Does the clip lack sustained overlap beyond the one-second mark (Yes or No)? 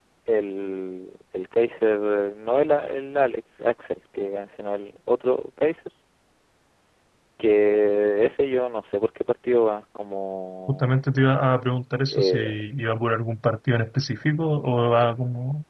Yes